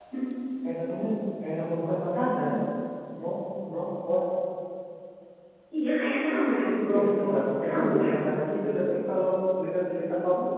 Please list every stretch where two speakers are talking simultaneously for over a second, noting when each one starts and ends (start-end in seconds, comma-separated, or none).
6.8-8.2